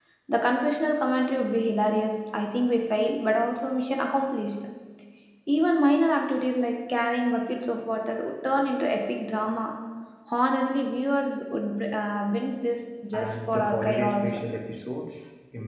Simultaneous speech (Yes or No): Yes